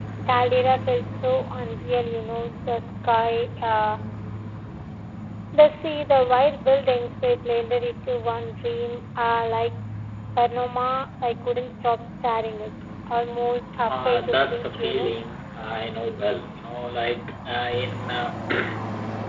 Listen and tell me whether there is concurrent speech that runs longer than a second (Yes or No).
Yes